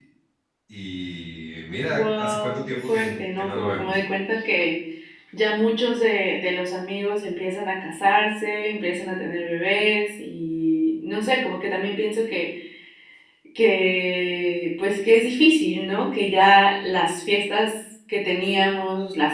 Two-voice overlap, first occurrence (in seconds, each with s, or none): 1.8 s